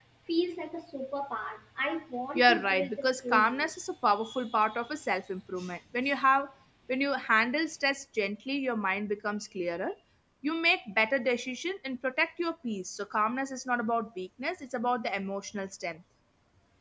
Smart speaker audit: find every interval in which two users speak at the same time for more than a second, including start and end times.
2.4-3.7

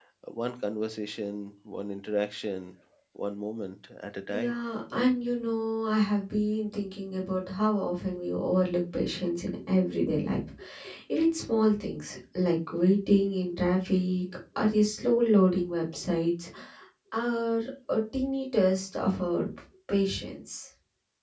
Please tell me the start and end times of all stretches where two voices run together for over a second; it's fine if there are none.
none

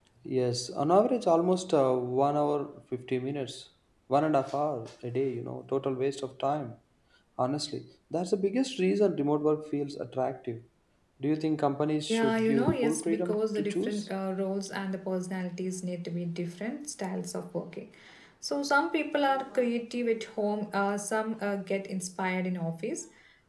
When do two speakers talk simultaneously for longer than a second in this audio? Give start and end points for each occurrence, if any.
12.1-14.1

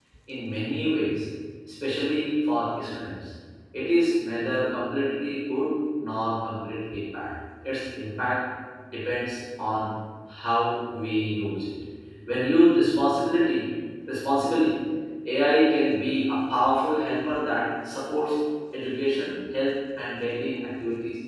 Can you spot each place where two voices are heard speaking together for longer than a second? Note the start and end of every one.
none

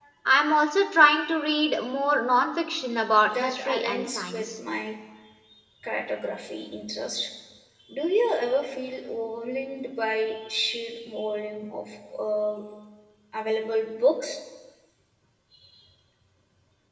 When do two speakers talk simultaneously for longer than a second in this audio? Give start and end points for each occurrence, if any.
3.2-4.5

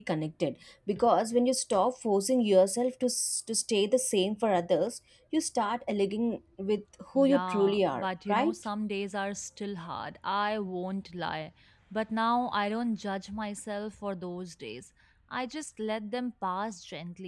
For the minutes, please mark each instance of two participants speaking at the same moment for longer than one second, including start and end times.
7.2-8.6

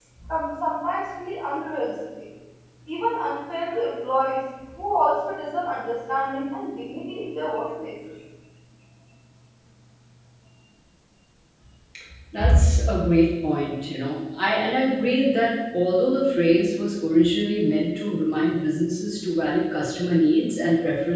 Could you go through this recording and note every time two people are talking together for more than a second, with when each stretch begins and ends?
none

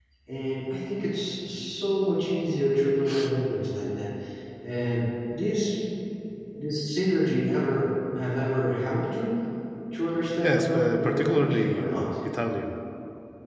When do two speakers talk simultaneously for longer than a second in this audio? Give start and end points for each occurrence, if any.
10.4-12.0

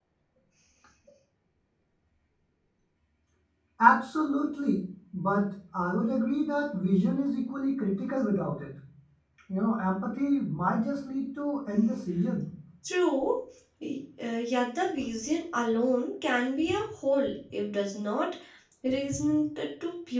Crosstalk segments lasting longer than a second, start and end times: none

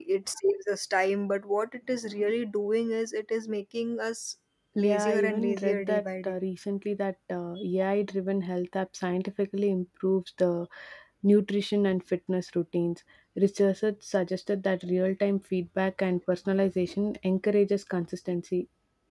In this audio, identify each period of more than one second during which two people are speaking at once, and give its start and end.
4.8-6.4

